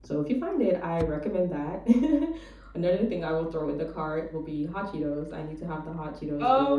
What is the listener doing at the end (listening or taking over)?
taking over